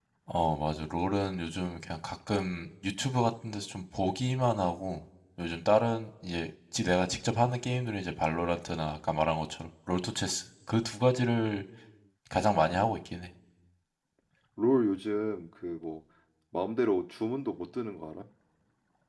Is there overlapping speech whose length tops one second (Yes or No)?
No